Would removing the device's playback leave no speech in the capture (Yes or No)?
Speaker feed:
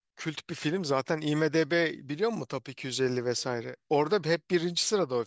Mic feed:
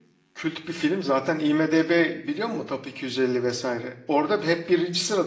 Yes